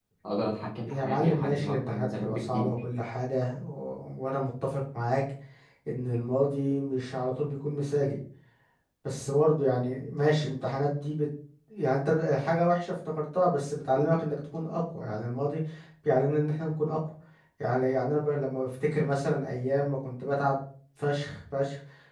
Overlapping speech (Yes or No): Yes